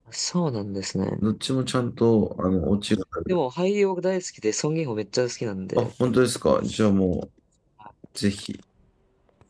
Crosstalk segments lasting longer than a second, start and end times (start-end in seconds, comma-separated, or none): none